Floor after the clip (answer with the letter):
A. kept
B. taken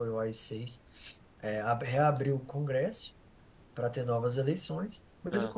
A